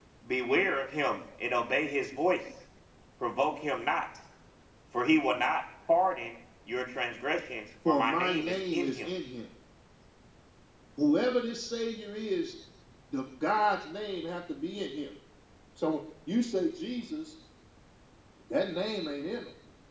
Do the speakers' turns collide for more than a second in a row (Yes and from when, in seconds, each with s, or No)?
Yes, from 7.8 s